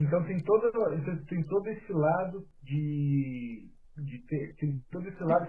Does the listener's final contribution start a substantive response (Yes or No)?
No